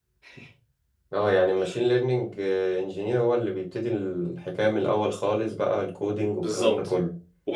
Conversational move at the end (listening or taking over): taking over